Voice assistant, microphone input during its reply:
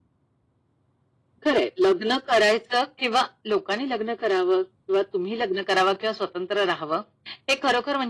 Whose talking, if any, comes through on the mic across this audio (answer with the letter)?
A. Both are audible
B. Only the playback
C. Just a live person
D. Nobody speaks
B